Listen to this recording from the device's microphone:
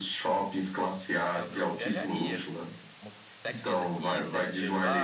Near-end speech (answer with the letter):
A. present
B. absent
A